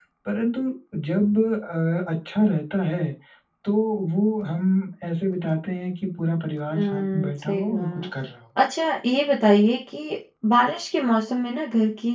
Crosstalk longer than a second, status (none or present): present